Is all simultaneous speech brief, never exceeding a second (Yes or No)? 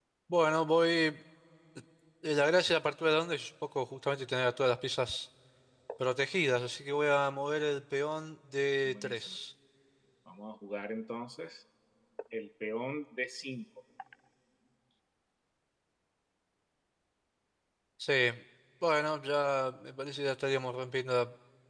Yes